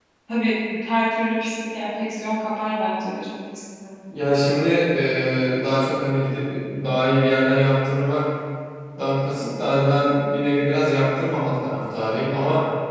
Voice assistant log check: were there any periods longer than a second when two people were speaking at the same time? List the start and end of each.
none

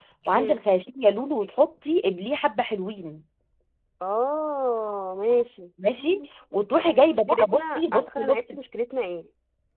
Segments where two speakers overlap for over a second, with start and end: 6.7-8.4

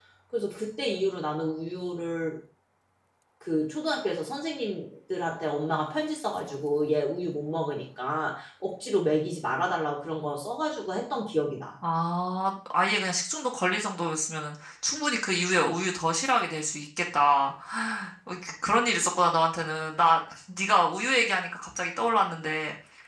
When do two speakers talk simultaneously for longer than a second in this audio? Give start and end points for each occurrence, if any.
none

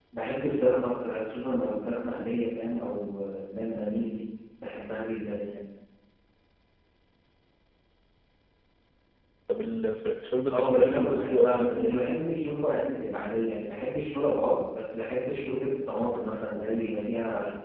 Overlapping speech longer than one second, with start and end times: 10.5-12.0

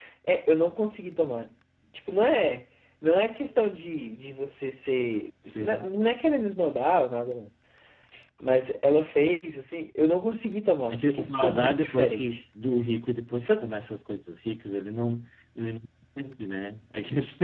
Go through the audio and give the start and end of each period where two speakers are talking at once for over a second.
10.9-12.4

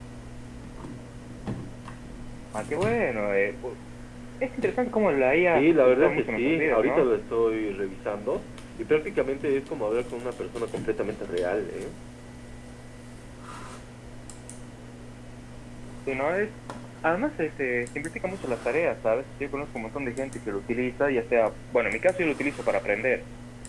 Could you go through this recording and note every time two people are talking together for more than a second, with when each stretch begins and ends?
5.4-7.1

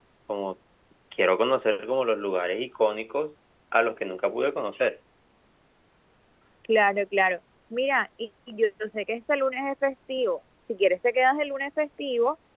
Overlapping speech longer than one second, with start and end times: none

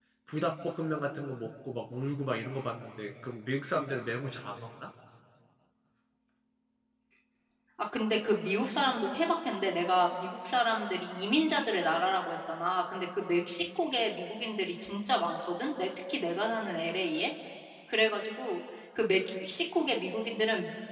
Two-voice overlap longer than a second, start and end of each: none

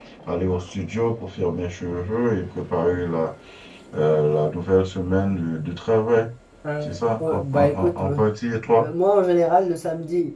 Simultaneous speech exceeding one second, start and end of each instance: 6.8-8.2

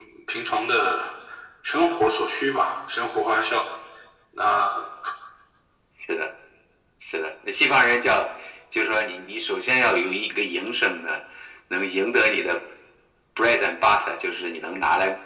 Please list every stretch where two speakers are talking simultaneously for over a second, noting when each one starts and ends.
none

